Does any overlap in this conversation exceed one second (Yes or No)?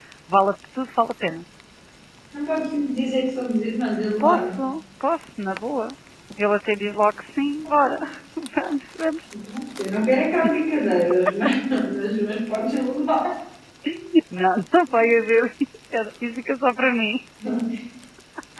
No